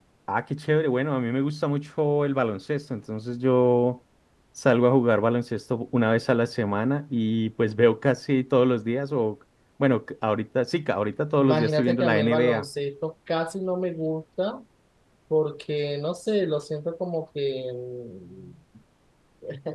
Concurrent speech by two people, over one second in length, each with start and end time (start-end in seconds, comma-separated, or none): 11.4-12.7